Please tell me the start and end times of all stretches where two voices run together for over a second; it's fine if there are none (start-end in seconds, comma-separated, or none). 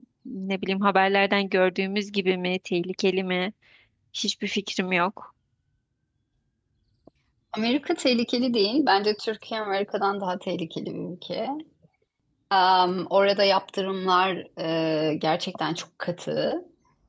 none